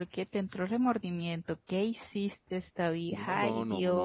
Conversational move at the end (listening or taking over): taking over